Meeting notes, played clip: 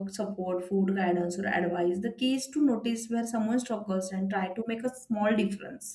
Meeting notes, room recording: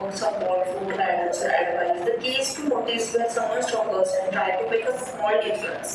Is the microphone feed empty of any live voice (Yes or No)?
Yes